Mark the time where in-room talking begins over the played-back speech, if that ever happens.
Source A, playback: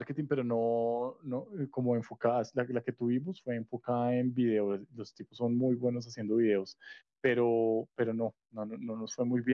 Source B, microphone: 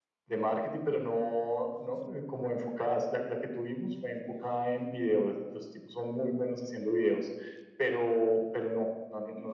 none

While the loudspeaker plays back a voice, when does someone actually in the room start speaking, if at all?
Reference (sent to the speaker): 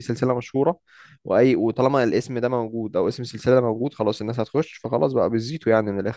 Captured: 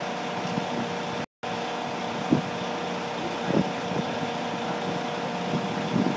none

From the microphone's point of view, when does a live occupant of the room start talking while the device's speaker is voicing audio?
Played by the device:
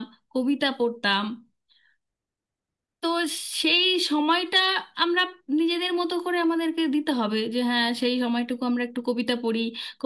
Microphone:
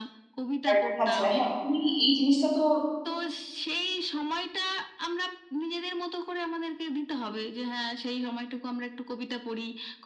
0.7 s

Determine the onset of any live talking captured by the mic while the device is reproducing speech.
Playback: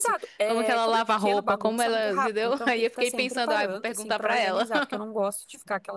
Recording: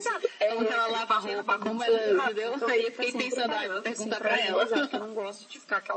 none

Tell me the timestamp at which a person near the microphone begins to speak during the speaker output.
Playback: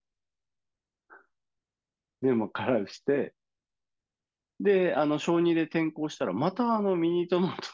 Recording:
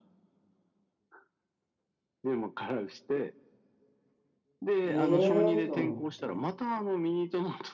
4.8 s

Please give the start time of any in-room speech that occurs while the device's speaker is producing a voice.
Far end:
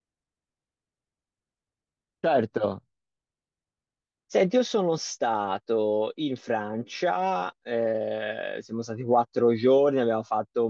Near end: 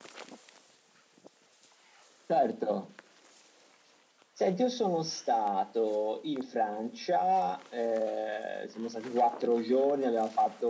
none

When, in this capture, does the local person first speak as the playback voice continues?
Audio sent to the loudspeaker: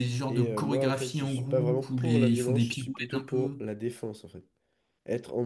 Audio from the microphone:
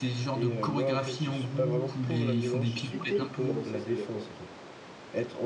2.9 s

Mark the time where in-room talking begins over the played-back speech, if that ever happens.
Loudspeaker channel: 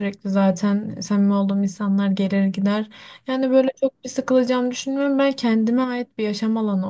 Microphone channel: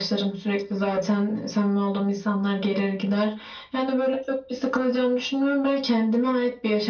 none

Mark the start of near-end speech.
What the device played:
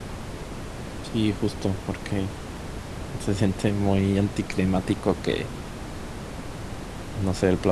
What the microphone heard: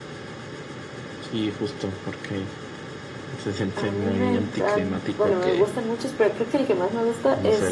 3.7 s

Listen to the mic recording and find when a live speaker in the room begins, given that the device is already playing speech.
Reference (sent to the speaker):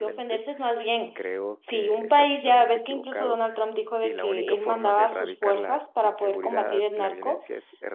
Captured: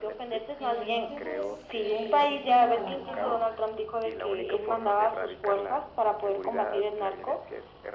0.6 s

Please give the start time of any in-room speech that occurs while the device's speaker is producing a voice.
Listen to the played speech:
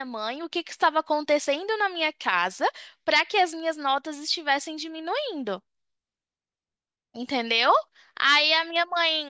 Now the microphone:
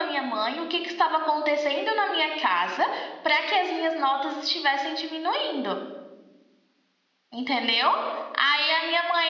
none

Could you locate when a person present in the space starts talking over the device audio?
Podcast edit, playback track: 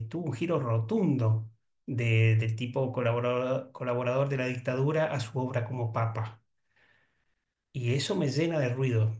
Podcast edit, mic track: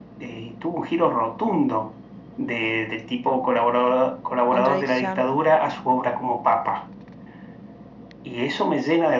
4.5 s

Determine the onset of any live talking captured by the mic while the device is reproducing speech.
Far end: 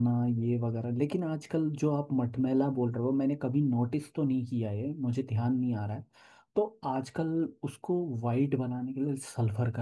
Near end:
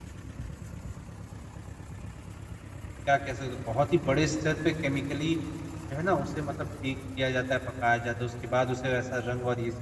3.0 s

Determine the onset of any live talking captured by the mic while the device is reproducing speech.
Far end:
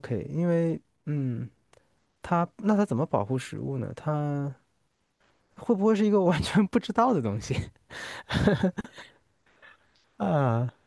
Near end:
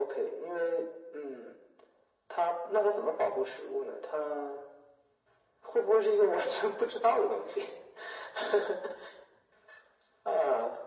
none

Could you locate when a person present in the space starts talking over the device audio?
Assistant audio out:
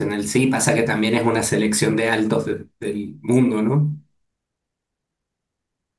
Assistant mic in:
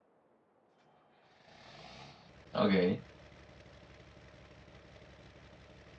2.5 s

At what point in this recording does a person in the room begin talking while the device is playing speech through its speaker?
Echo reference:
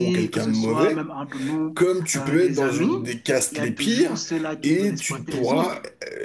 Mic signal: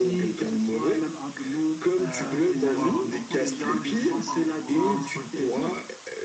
2.0 s

